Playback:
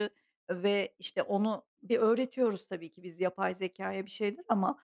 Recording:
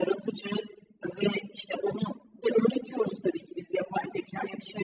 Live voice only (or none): none